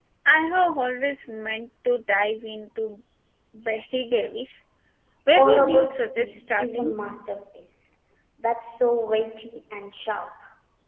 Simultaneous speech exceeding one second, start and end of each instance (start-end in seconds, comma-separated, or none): 5.4-7.0